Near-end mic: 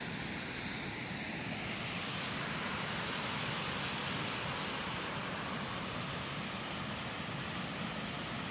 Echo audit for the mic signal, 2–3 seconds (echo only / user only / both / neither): neither